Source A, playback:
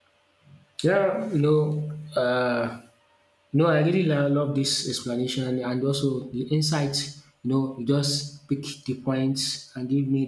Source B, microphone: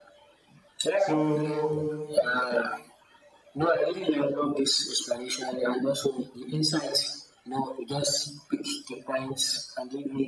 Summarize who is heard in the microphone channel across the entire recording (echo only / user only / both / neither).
both